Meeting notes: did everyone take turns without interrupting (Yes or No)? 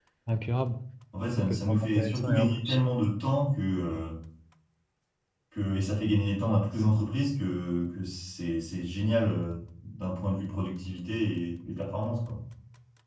No